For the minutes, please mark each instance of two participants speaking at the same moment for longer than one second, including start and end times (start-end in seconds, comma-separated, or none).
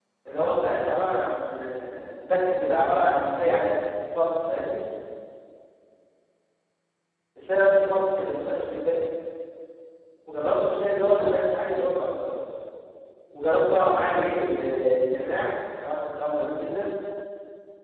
none